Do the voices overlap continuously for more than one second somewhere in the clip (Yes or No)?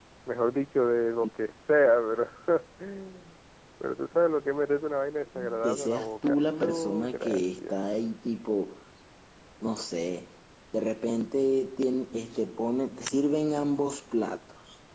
Yes